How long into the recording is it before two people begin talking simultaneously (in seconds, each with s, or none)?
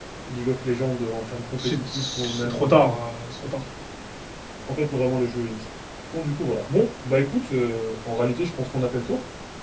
1.6 s